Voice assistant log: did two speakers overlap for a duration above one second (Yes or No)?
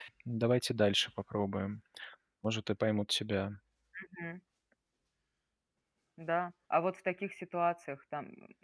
No